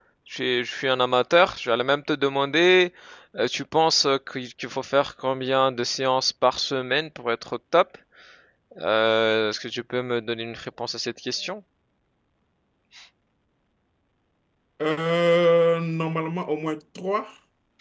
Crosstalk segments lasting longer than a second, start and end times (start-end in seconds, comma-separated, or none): none